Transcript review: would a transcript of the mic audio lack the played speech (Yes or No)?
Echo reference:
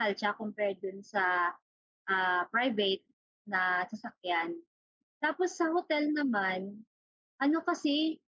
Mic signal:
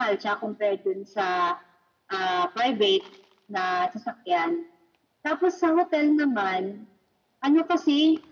No